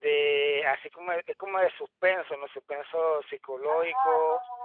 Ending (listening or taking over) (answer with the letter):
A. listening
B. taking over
B